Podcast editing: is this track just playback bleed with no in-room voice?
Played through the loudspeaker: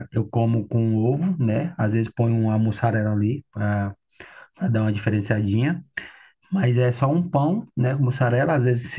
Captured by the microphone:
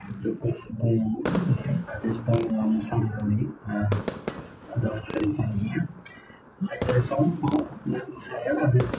Yes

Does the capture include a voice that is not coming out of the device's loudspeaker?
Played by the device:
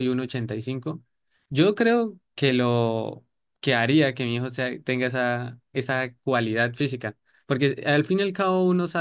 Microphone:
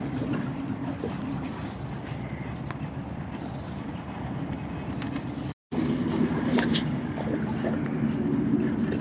No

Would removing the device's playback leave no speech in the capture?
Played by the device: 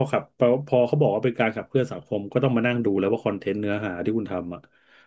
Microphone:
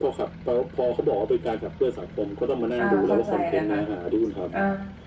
No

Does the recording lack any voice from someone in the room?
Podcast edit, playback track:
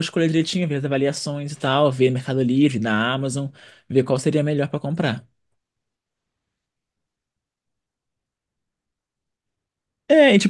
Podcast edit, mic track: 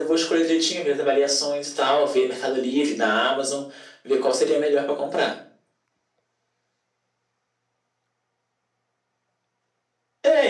Yes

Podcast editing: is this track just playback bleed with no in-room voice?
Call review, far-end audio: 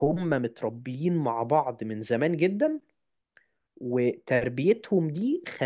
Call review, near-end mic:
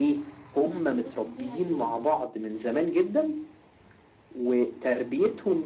No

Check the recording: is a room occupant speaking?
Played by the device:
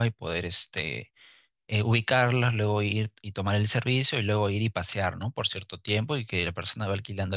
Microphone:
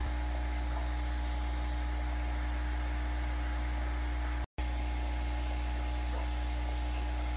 No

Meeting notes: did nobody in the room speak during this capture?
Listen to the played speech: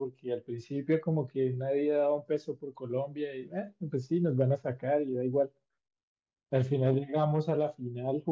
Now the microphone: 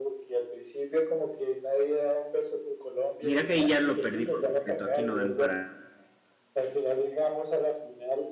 No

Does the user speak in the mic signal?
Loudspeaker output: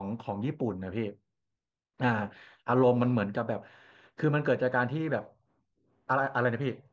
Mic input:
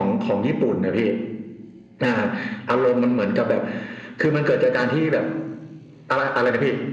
No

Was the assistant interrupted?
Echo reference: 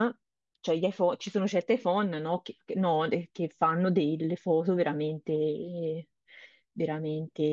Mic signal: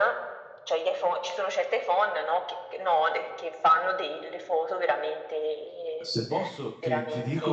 Yes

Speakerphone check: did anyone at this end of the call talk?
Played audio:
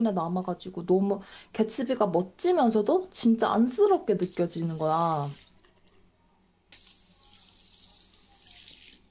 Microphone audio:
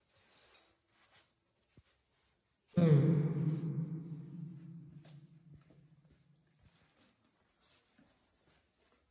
Yes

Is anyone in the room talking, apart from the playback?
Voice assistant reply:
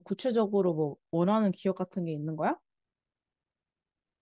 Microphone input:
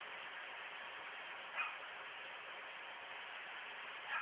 No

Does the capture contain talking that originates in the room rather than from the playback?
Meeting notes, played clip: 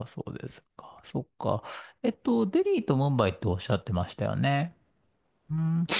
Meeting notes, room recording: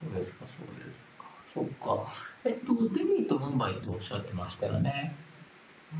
No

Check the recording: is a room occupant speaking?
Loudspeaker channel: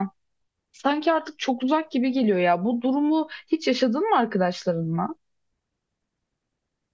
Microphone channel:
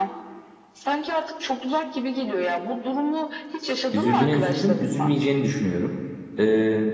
Yes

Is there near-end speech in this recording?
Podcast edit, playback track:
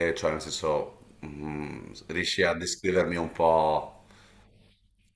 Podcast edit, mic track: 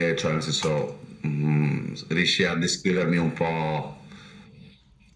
No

